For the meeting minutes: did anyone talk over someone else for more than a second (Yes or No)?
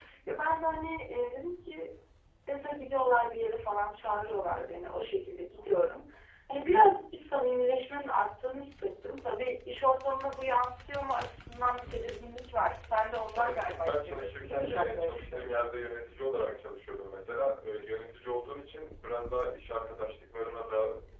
Yes